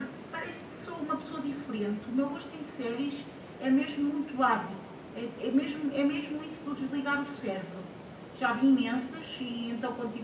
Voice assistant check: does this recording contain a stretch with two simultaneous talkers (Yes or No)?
No